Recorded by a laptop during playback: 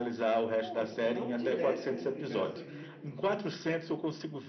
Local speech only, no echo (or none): Pô, se não tivesse um universo rico.